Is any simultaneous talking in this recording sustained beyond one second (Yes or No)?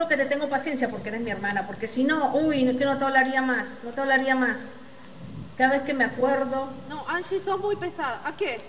No